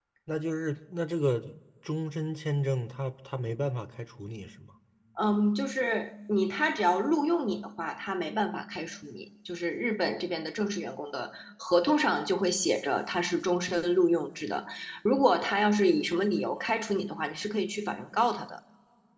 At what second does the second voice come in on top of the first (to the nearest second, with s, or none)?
none